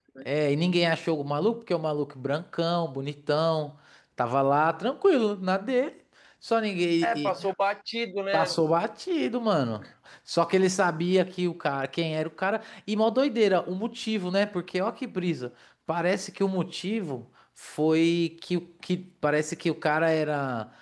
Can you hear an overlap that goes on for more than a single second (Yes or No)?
No